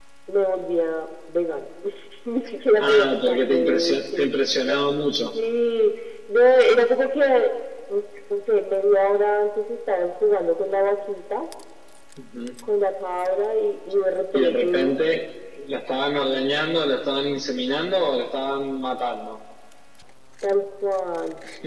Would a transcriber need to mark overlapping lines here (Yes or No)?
Yes